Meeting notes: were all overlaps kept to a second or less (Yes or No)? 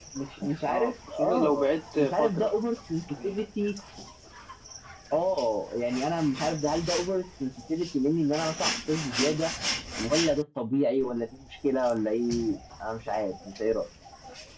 No